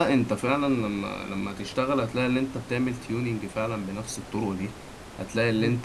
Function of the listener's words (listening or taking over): listening